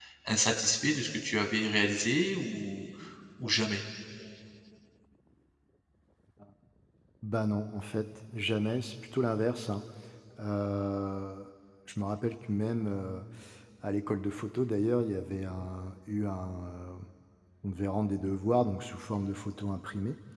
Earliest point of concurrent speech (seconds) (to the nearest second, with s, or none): none